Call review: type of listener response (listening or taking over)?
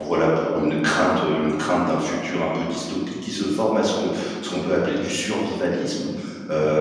listening